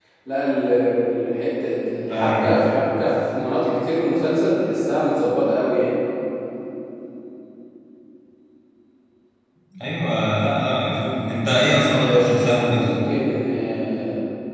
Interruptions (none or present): present